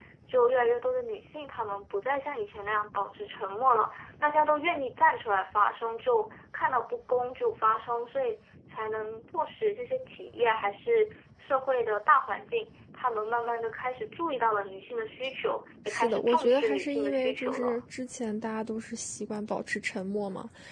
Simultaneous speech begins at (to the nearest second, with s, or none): 16 s